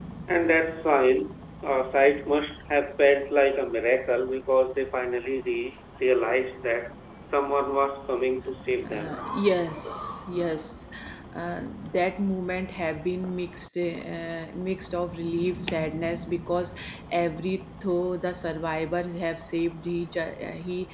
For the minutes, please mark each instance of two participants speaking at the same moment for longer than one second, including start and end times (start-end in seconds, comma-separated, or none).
none